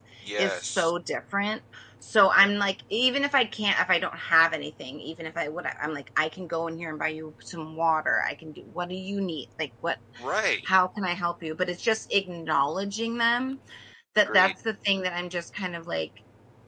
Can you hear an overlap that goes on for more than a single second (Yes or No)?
No